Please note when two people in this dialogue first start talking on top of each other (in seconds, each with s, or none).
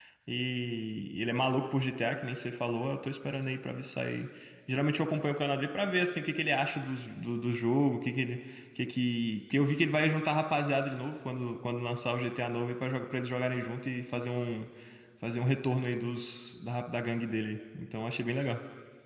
none